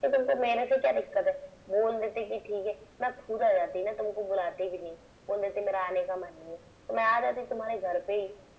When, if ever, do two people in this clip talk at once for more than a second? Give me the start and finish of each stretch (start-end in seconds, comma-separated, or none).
none